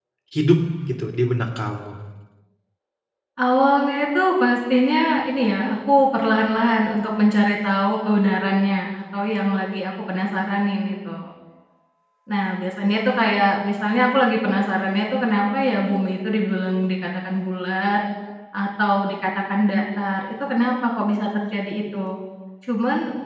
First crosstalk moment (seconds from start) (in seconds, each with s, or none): none